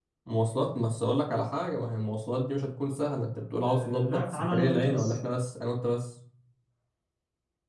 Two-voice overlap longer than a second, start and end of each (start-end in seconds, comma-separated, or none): 3.6-5.2